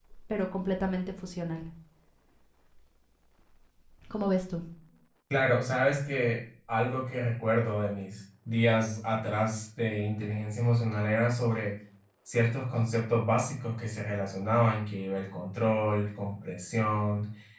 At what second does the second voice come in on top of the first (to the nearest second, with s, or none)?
none